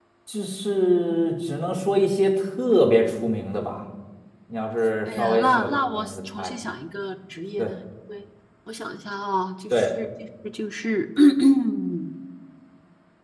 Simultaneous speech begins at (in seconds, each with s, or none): 5.2 s